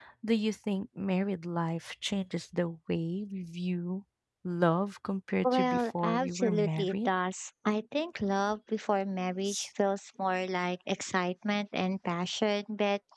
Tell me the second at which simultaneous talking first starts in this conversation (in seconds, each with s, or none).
5.4 s